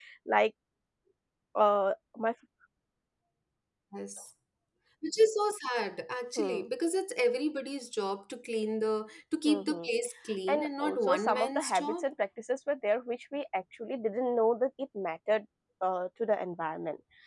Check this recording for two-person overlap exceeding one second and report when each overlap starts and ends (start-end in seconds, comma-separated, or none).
10.5-12.0